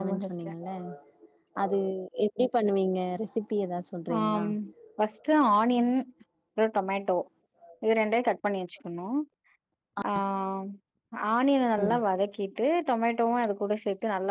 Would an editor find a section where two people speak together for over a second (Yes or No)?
No